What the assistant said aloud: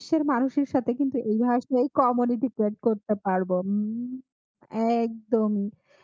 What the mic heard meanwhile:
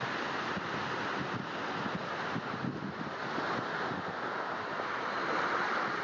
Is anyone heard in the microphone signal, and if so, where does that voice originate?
neither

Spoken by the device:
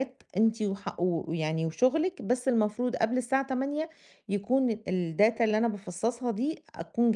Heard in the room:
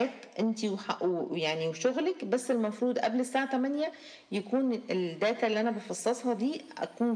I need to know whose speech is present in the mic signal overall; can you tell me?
echo only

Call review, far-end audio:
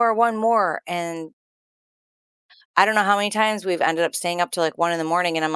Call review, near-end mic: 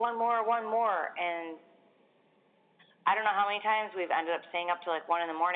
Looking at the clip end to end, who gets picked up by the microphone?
echo only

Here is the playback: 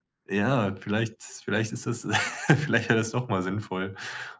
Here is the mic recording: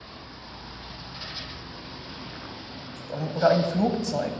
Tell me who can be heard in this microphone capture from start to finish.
user only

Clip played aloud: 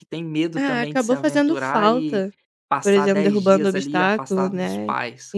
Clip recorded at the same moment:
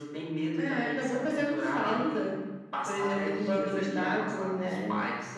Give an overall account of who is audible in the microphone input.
echo only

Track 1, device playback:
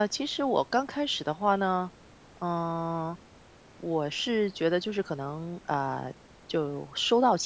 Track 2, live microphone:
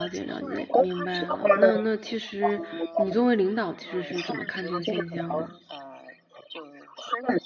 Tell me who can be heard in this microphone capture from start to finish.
both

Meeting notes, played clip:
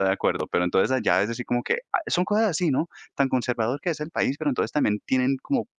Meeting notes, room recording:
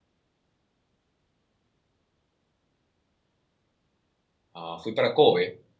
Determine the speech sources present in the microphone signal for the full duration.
user only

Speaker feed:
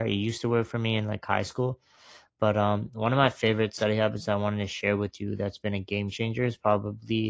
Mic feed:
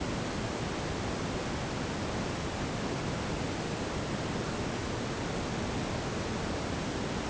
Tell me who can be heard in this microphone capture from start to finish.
neither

